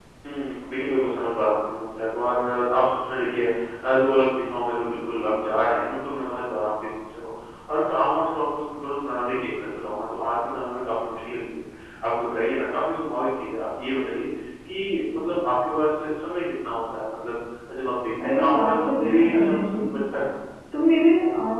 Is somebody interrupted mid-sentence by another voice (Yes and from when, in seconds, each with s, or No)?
Yes, from 18.2 s